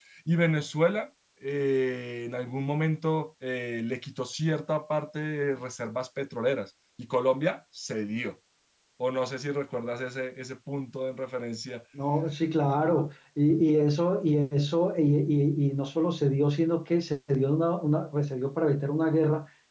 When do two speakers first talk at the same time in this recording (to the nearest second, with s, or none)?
none